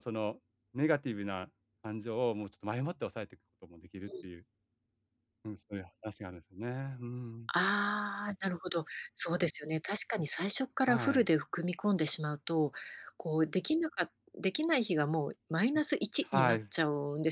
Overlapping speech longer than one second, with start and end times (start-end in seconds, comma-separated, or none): none